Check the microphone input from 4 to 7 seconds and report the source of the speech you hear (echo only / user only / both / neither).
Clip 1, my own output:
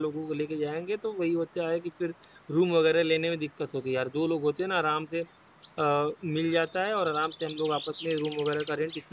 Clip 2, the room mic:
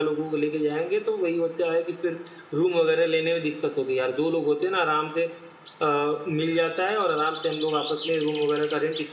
echo only